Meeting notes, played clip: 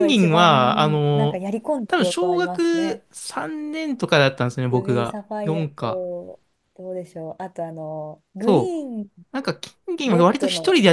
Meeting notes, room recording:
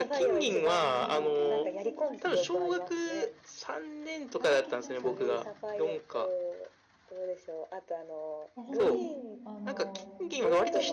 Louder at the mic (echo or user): echo